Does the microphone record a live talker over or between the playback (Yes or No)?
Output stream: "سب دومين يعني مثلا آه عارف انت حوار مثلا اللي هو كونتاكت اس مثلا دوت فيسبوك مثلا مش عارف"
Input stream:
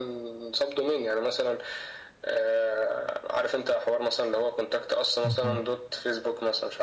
Yes